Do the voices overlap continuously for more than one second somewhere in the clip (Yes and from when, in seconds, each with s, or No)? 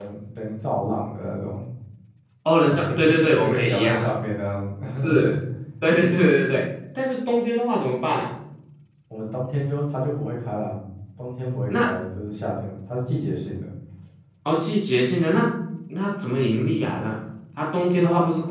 Yes, from 2.6 s